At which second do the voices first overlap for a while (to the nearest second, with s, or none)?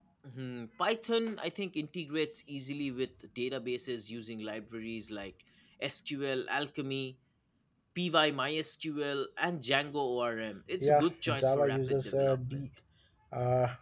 11 s